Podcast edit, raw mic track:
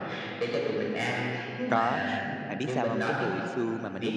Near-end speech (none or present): present